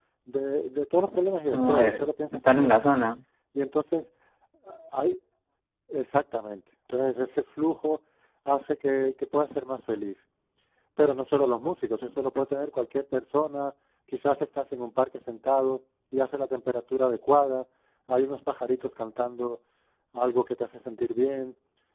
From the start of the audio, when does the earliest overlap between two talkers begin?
1.5 s

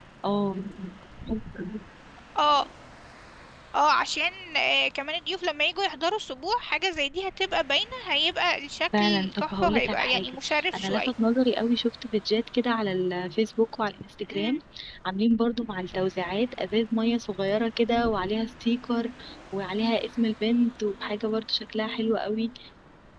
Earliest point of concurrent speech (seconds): 8.9 s

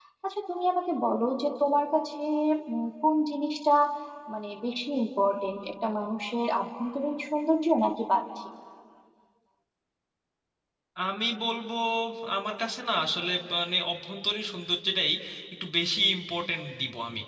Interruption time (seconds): none

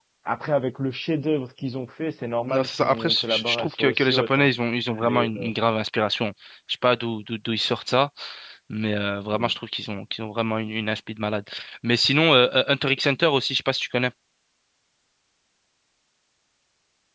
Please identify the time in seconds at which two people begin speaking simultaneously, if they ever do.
2.5 s

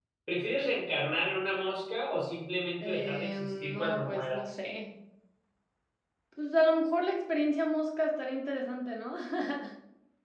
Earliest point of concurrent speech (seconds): 2.8 s

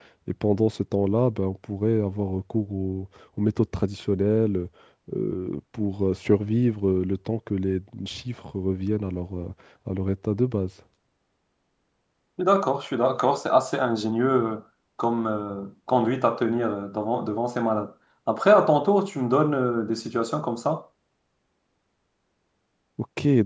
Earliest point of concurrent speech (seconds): none

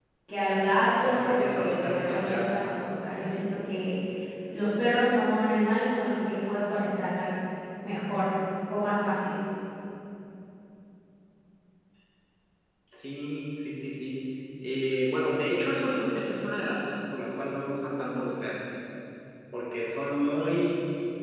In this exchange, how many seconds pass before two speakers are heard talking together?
1.0 s

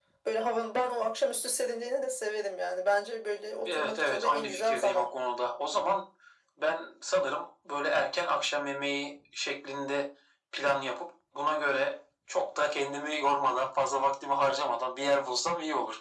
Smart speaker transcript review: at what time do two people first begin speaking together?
3.6 s

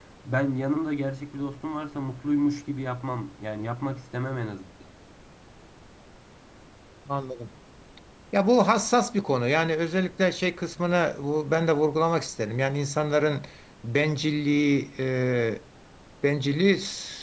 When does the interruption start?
none

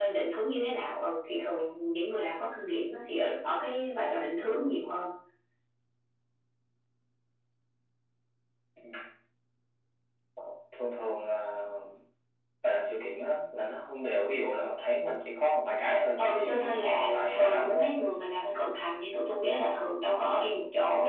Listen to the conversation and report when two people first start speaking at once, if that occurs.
16.2 s

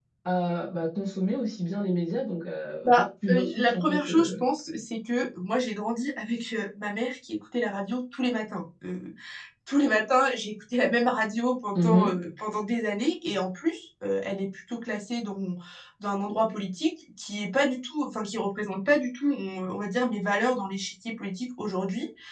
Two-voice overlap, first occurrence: 2.9 s

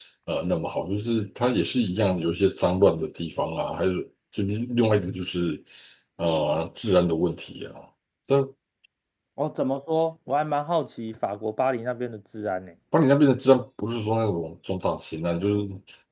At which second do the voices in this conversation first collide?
none

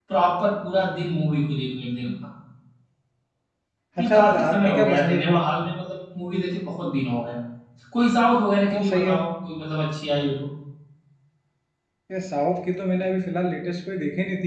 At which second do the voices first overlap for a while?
4.0 s

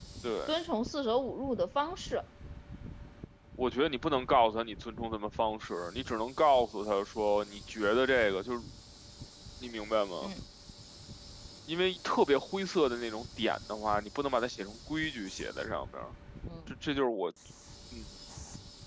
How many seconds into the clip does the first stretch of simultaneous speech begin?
none

